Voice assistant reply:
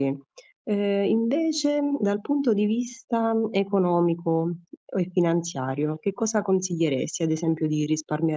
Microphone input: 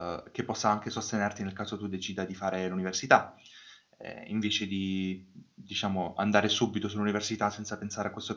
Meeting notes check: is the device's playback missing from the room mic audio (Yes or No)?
Yes